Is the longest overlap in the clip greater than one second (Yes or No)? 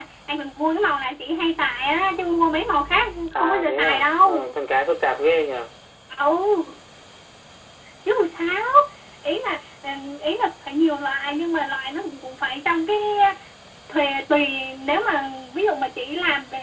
Yes